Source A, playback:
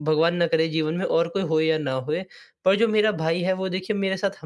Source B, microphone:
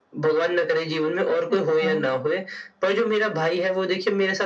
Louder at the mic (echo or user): echo